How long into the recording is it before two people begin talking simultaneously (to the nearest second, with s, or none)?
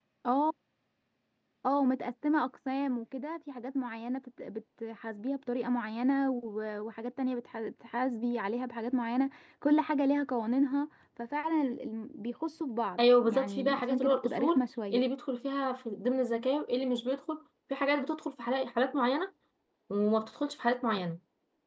13 s